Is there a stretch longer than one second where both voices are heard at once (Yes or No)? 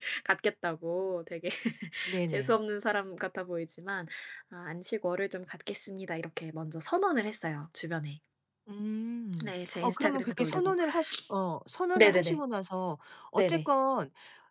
Yes